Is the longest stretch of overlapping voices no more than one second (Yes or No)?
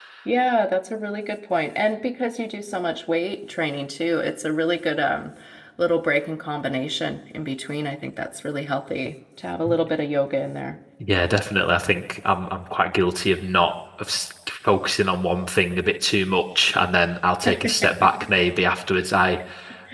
Yes